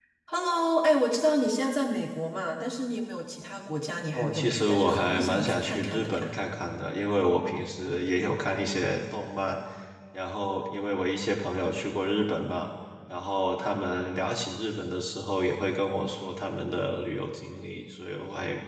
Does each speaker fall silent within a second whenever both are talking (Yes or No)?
No